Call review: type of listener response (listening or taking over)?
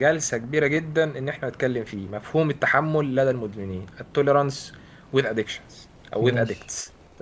listening